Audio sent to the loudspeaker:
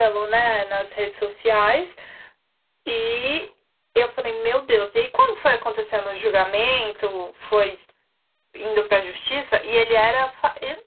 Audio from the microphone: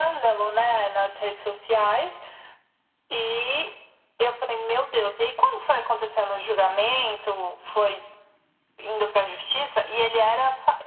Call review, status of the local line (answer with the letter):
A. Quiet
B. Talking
A